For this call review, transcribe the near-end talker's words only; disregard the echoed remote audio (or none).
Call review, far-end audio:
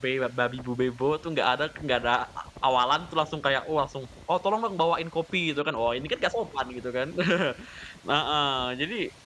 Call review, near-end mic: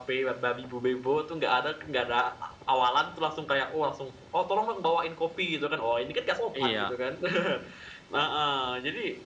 iya,